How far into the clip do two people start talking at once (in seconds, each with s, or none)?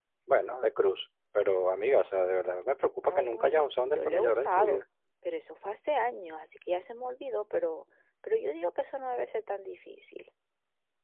3.0 s